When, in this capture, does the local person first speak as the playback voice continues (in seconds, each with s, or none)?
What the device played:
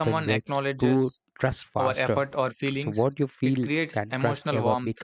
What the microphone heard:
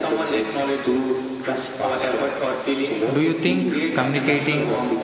3.1 s